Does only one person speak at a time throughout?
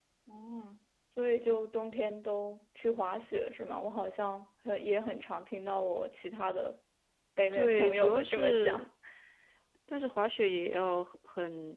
No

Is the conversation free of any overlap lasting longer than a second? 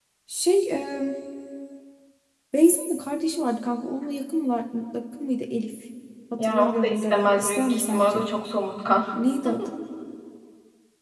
No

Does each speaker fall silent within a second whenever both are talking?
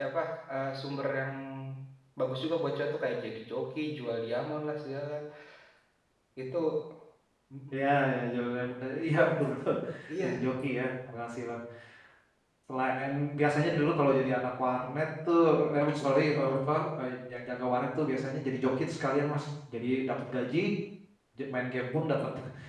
Yes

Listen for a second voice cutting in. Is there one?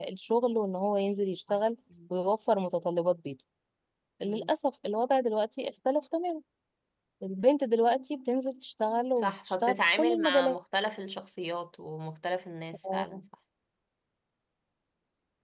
Yes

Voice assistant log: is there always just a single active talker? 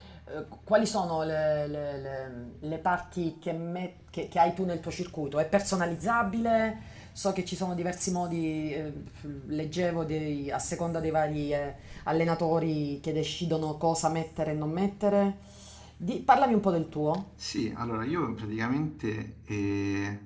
Yes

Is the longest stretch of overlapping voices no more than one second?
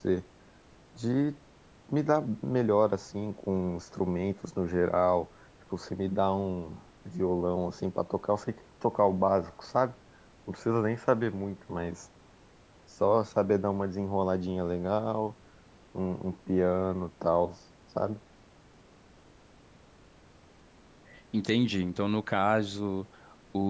Yes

